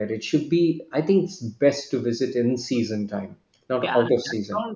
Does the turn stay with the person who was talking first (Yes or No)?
No